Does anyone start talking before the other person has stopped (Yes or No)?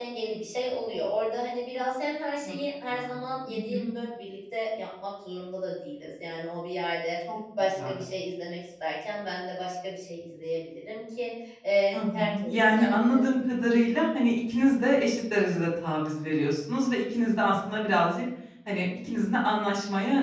Yes